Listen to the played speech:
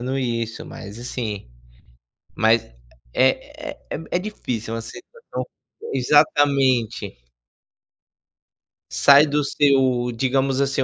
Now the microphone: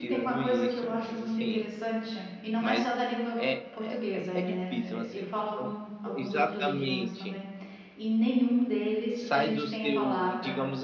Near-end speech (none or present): present